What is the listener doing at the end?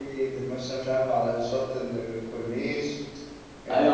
taking over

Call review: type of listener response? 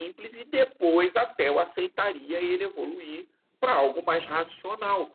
listening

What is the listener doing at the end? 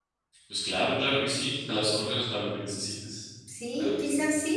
taking over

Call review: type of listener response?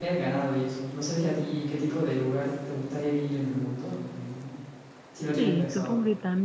taking over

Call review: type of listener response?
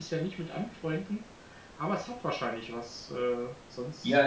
taking over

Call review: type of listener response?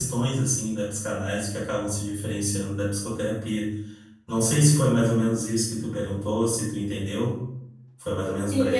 taking over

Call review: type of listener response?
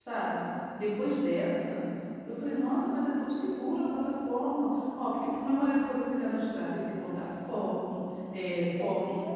listening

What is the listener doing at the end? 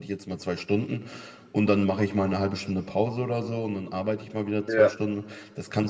listening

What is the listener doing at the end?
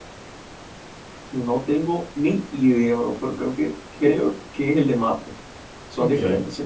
taking over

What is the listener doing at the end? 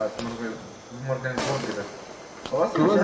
taking over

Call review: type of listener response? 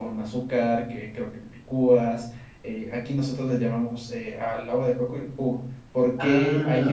listening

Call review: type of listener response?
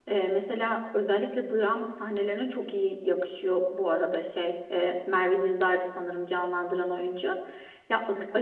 listening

